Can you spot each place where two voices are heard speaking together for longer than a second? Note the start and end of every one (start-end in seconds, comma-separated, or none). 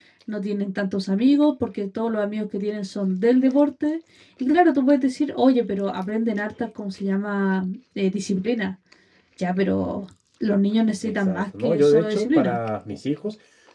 11.0-12.6